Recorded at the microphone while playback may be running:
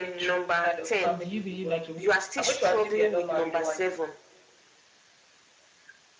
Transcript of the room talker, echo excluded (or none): so do you believe like a woman